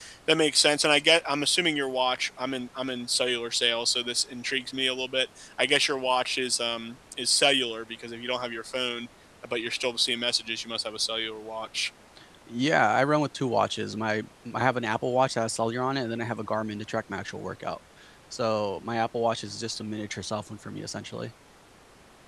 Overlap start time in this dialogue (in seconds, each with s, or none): none